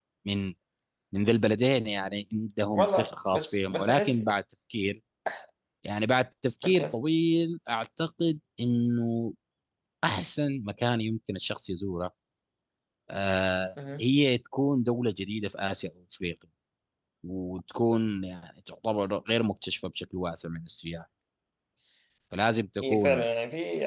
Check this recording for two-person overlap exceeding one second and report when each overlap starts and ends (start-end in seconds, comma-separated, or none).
2.7-4.3